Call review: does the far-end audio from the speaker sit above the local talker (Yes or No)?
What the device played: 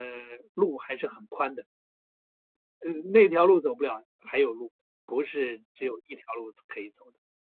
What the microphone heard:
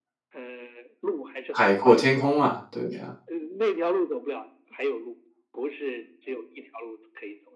No